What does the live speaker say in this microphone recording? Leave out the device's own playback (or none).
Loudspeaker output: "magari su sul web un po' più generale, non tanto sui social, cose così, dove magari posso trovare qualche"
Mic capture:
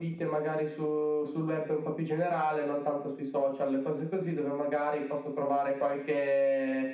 none